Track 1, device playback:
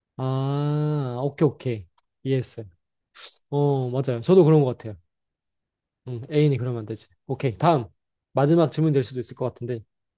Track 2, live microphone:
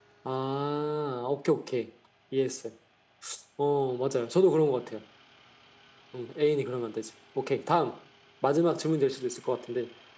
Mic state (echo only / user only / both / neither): echo only